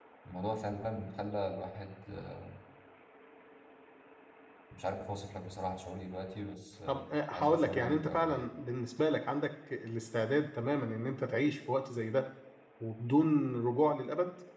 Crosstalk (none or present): present